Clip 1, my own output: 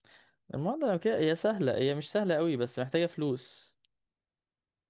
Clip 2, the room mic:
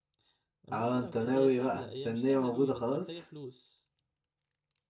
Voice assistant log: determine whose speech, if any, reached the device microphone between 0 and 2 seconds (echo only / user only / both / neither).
both